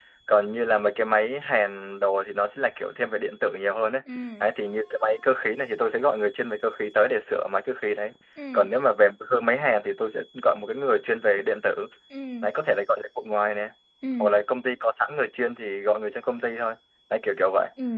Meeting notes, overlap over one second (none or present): none